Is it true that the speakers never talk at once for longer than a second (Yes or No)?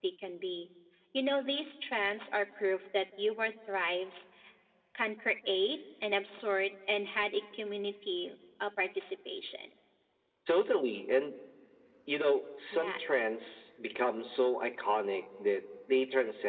Yes